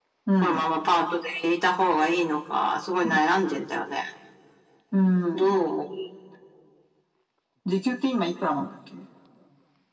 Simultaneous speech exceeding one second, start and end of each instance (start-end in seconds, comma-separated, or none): none